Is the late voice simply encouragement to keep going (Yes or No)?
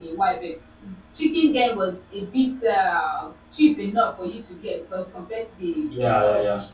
Yes